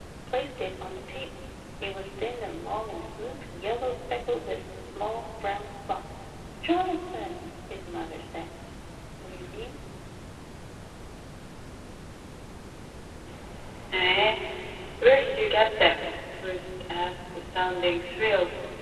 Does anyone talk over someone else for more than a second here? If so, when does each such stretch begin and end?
none

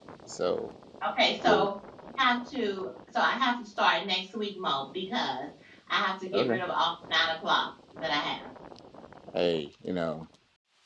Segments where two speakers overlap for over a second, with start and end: none

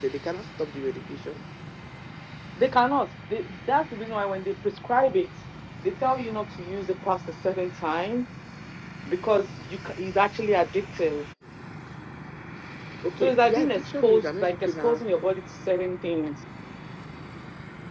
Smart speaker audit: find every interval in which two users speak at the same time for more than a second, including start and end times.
13.2-15.0

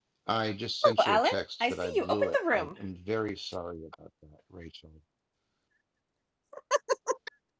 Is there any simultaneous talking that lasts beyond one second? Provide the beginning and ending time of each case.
0.8-2.8

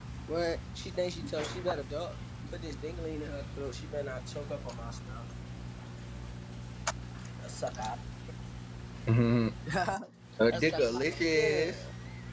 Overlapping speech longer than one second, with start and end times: 10.5-11.8

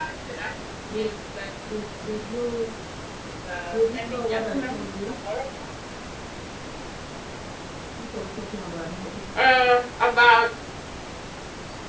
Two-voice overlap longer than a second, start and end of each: 3.7-5.1

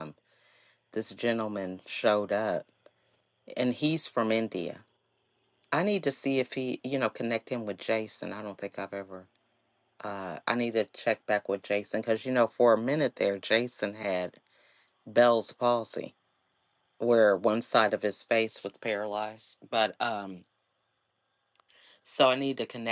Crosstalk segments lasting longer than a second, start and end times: none

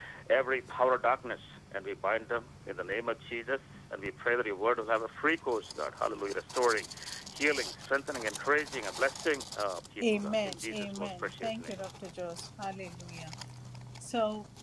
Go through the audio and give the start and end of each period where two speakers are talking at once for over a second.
10.0-11.8

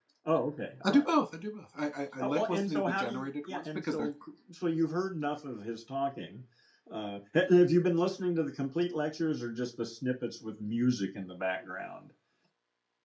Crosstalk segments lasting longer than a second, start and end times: 2.2-4.1

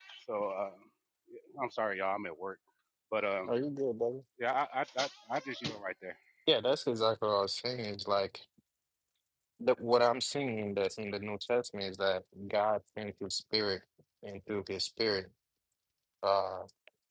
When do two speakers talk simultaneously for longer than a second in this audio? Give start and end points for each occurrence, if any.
none

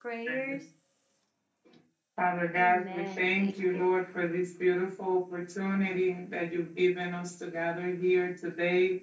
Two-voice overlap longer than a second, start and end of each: 2.6-3.8

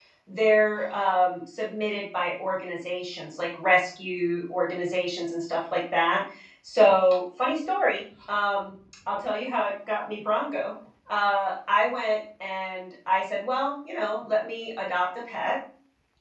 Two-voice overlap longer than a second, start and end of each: none

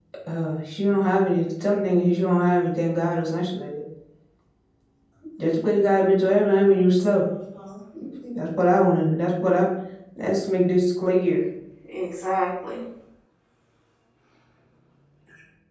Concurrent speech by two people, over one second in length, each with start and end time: none

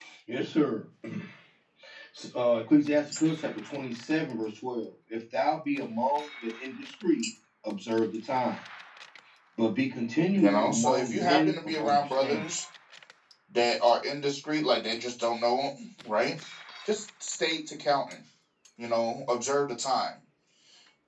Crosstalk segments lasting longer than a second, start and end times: 10.3-12.4

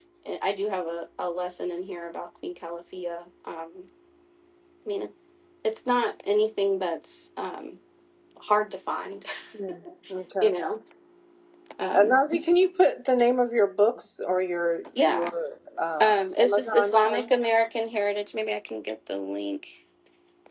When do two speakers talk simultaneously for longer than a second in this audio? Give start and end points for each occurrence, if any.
16.0-17.3

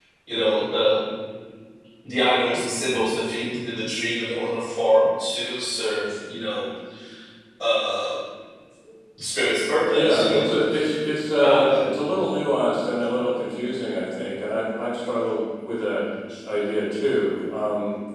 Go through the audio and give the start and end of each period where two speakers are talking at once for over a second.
none

